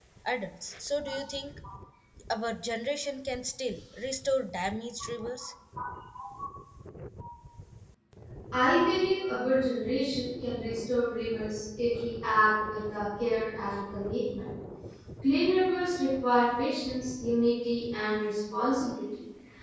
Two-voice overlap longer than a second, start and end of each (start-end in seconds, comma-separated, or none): none